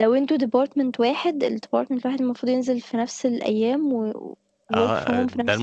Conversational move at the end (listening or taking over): taking over